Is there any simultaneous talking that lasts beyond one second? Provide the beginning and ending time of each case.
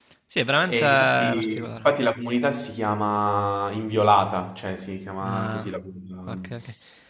0.6-1.9

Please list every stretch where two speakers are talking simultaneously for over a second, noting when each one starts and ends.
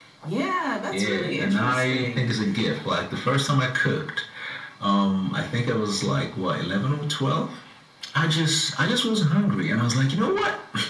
0.9-2.3

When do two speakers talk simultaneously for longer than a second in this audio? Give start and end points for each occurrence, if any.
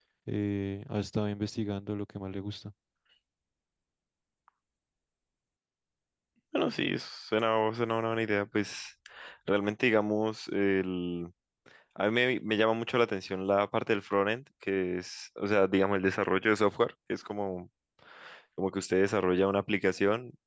none

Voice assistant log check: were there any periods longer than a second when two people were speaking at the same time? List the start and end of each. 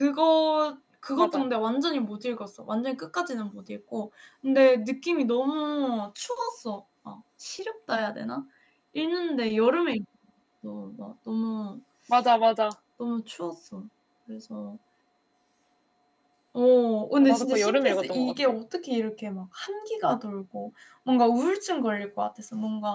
17.2-18.6

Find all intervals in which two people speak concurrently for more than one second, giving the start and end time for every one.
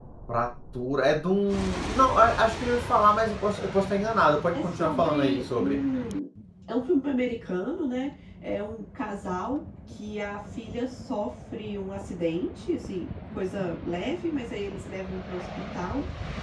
4.5-5.8

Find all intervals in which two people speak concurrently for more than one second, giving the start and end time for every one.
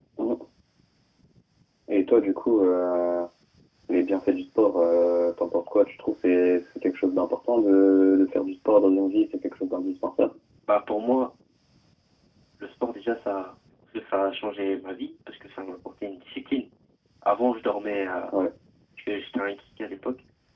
none

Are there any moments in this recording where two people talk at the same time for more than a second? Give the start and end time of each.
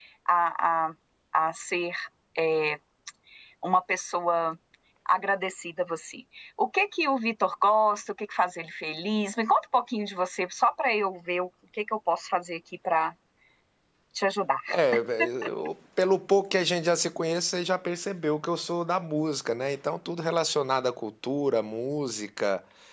none

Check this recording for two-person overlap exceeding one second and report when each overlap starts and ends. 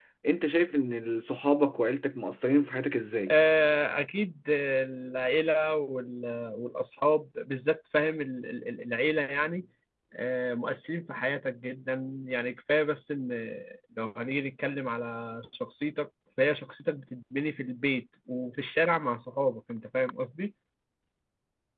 none

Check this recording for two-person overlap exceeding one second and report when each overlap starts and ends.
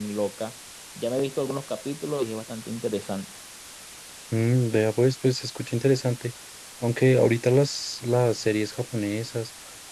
none

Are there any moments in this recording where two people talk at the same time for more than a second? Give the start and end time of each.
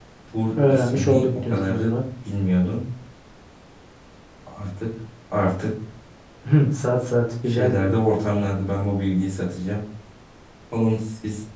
0.7-2.0

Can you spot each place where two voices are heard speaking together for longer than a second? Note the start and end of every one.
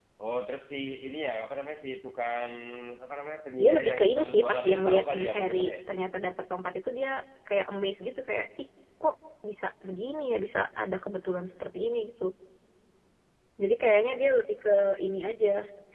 3.6-5.7

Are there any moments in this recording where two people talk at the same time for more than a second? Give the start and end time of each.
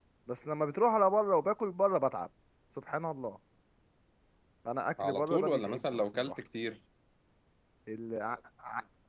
5.0-6.3

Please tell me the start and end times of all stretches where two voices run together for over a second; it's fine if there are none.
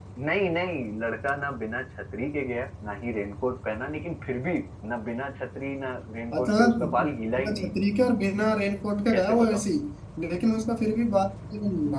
6.3-7.7

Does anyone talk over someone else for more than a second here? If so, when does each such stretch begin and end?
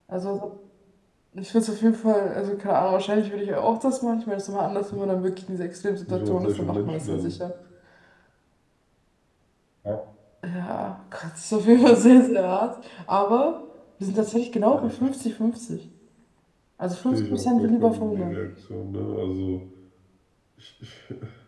6.1-7.4, 17.1-18.4

